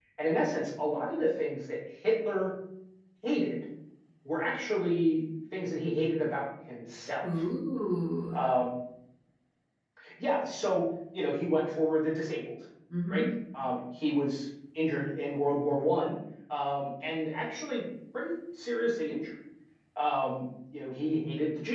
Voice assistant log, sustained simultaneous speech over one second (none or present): none